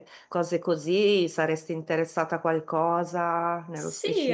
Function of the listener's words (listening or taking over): taking over